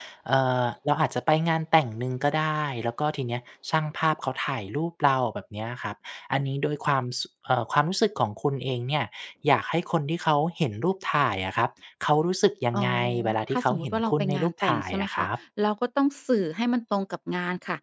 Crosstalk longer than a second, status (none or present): present